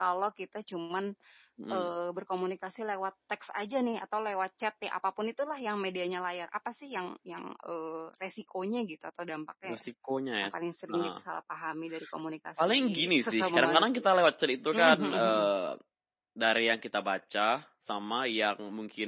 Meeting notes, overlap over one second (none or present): present